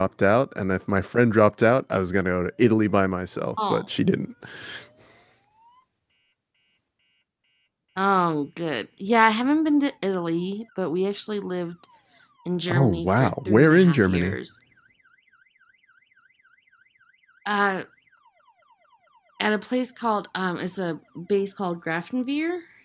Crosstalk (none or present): present